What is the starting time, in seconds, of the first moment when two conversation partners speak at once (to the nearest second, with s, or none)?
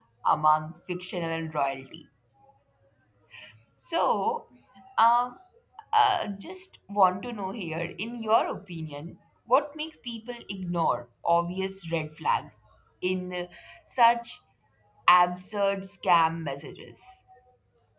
none